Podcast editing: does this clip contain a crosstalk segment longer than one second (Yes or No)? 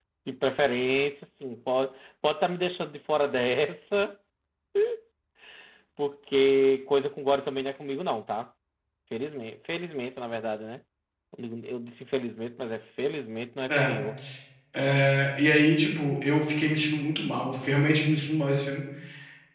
No